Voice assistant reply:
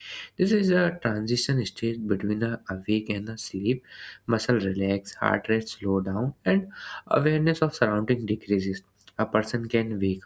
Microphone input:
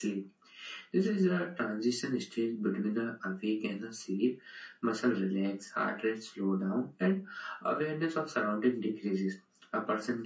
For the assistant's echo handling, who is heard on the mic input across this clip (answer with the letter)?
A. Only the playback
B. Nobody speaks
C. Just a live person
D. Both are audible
A